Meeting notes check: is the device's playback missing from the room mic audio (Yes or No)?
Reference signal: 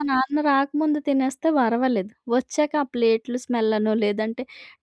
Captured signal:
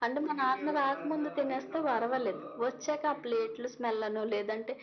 No